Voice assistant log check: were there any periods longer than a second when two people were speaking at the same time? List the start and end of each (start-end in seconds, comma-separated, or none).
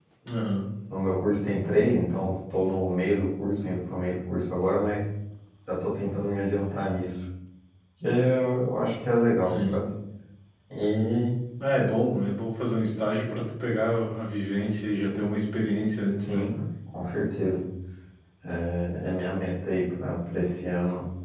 none